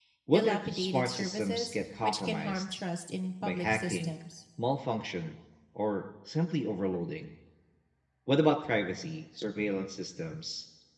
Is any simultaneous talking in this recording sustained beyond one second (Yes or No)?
Yes